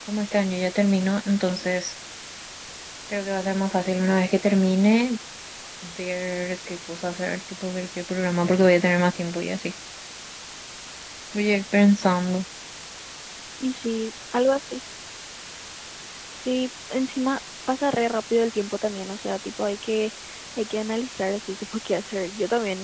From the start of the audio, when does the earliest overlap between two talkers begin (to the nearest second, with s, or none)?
none